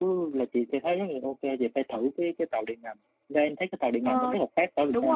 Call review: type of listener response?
taking over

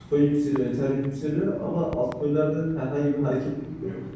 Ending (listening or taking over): listening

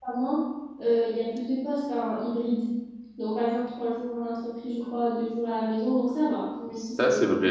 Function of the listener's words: taking over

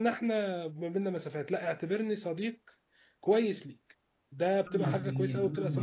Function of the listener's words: taking over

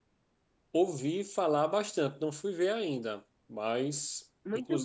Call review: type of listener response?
taking over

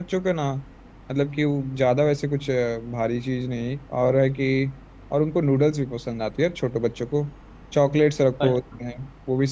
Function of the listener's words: listening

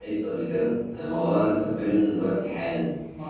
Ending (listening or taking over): listening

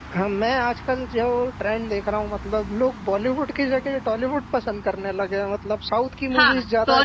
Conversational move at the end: taking over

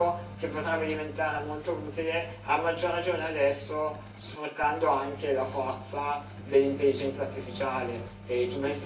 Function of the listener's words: taking over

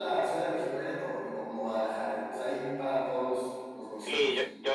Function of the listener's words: taking over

